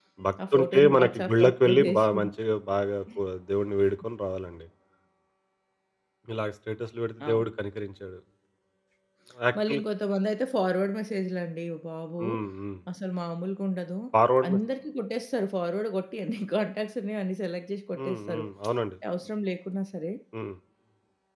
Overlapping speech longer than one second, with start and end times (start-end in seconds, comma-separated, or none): 0.5-2.1